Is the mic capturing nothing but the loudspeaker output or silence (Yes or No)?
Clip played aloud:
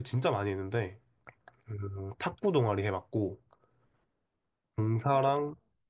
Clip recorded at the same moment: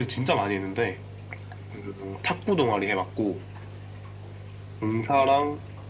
Yes